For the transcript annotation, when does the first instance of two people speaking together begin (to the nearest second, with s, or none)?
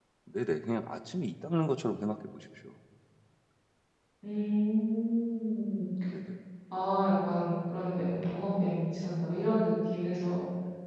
none